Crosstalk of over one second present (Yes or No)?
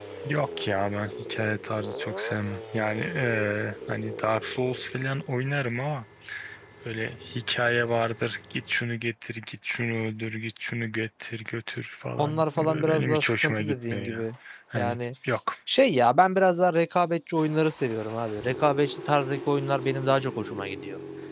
Yes